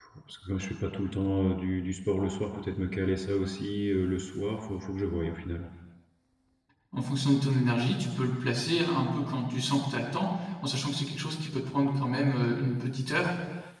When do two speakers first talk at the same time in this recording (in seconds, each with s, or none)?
none